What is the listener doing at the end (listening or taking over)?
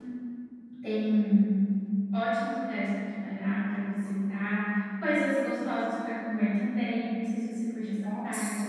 taking over